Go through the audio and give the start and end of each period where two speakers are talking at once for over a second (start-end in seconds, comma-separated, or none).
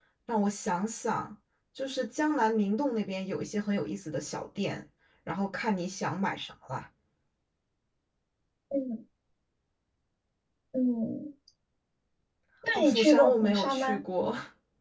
12.7-14.0